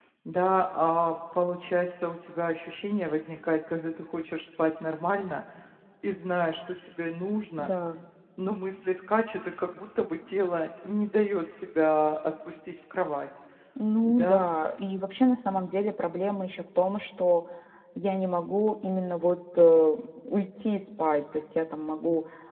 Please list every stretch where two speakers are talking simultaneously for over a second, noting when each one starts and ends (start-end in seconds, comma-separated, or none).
none